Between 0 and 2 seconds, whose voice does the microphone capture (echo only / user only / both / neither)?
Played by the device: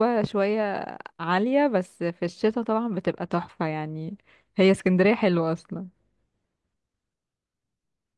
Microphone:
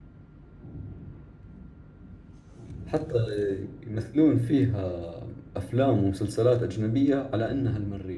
neither